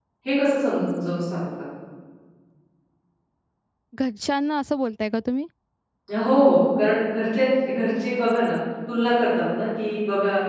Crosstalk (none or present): none